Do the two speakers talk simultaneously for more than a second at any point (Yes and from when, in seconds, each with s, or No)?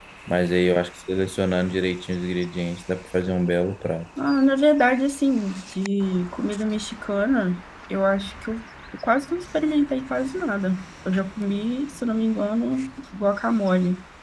No